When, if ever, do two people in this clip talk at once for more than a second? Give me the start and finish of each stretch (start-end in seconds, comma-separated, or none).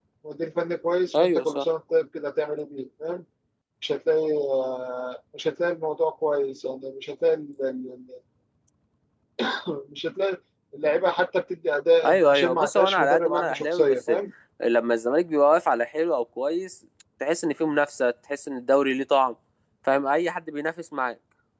12.0-14.1